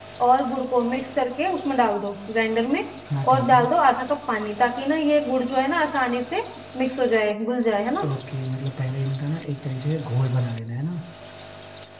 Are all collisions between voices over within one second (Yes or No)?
Yes